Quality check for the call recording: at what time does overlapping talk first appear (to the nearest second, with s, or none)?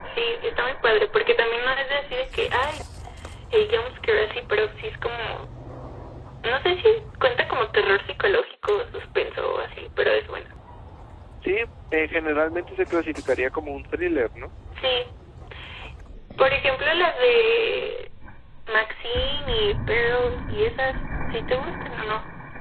none